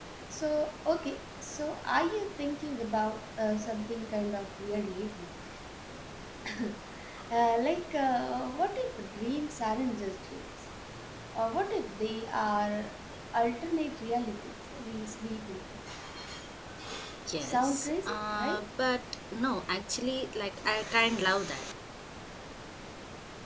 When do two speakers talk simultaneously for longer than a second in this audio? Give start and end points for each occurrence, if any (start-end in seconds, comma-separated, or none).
17.4-18.7